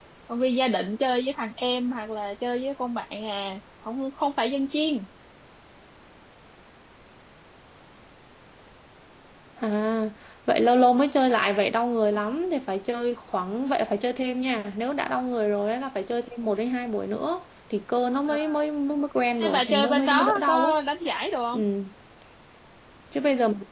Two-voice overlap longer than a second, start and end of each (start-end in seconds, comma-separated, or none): 19.4-20.7